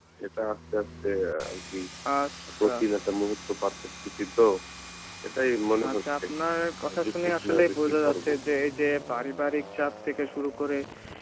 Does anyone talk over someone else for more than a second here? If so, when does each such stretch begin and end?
7.0-8.3

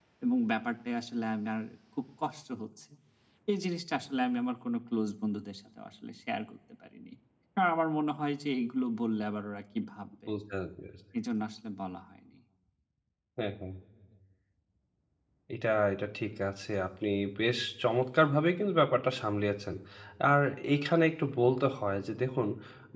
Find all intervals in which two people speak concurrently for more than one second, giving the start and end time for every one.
none

